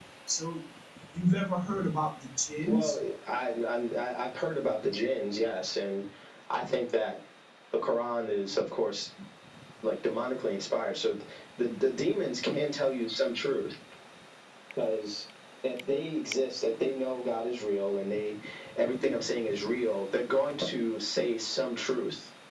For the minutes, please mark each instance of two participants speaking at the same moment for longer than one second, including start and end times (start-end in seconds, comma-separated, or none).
none